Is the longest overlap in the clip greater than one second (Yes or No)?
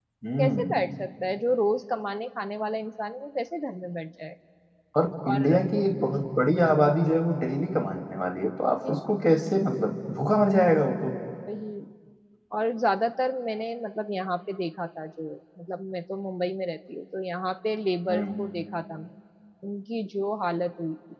No